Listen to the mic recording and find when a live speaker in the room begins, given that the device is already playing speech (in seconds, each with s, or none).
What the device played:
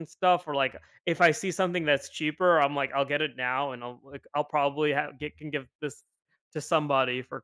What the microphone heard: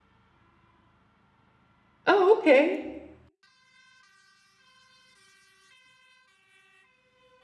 2.0 s